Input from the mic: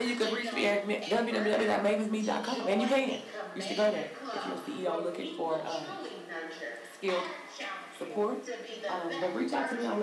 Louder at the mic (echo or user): user